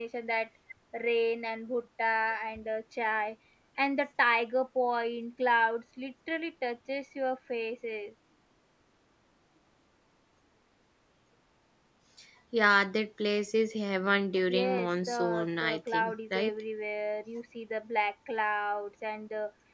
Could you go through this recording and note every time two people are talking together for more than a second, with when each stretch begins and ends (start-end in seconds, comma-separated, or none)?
14.5-16.5